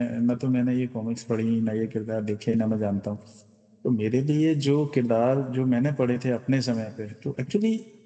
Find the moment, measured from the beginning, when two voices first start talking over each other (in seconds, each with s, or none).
none